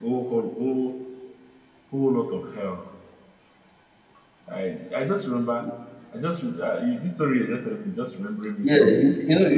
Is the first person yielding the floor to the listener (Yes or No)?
Yes